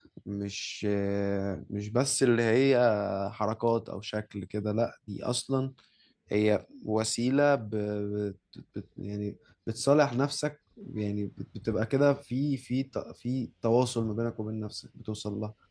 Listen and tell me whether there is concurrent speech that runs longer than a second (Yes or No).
No